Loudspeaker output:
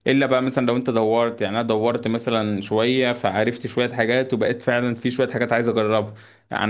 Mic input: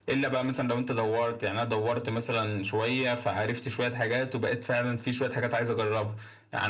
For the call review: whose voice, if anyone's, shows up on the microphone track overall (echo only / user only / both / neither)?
echo only